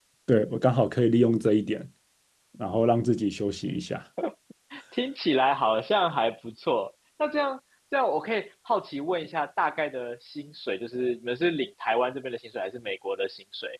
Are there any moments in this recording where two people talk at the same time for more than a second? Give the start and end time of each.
none

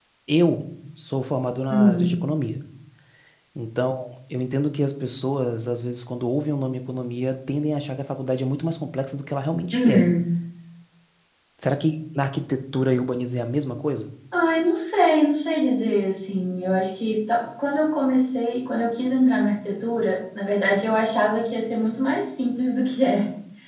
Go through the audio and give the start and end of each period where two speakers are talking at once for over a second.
none

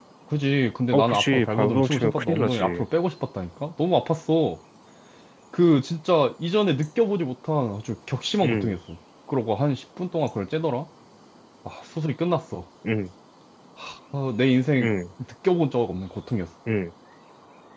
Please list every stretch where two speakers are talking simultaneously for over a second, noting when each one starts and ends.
0.9-2.8

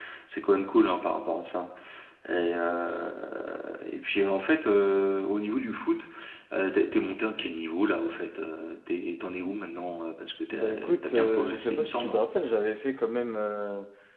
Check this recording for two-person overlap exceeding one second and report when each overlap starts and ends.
10.5-12.2

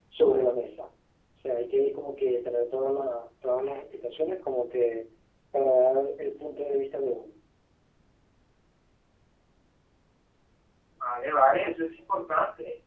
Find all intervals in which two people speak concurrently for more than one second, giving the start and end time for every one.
none

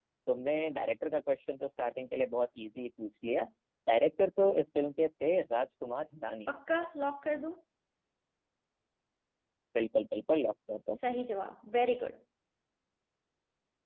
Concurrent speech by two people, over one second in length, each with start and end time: none

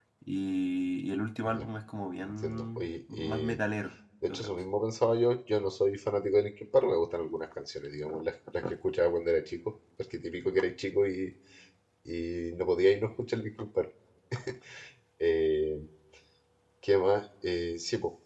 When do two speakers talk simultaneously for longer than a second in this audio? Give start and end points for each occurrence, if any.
2.2-3.6

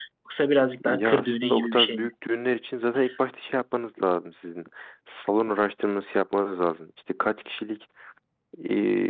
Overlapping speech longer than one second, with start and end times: 0.8-2.1

